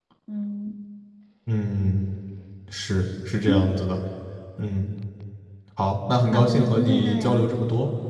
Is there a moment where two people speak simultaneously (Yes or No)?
Yes